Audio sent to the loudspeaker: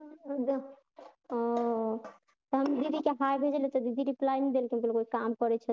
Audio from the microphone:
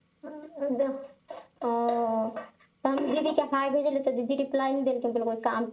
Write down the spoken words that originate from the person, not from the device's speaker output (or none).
none